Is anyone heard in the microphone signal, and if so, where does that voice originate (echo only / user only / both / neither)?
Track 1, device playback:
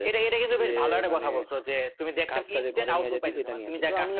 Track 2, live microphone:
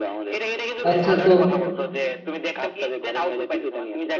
both